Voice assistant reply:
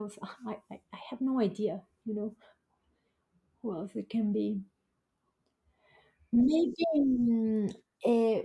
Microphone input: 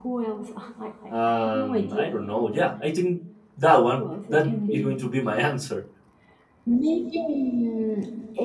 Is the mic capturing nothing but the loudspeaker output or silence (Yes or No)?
No